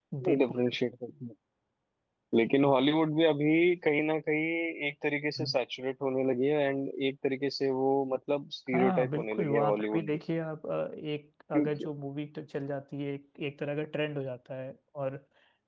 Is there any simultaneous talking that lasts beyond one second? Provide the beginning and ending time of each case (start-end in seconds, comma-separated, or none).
8.7-10.2